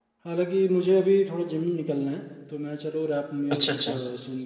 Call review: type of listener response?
listening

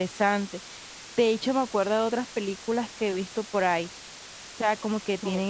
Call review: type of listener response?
listening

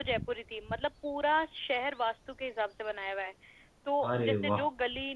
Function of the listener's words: listening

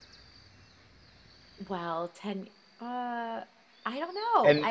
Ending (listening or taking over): taking over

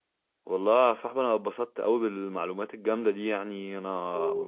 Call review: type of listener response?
listening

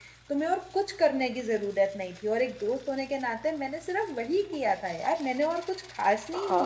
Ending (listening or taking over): taking over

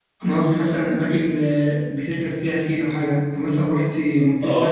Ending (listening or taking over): taking over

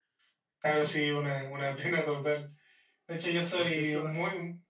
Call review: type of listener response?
listening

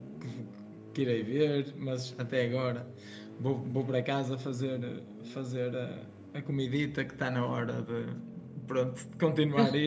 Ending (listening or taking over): listening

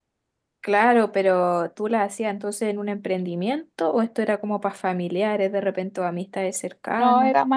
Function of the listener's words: taking over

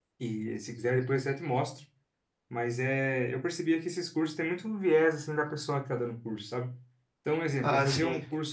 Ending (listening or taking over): listening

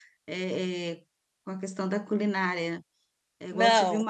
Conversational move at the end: listening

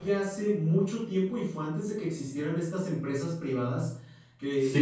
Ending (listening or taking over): taking over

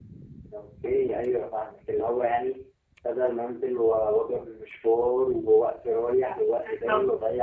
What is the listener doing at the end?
listening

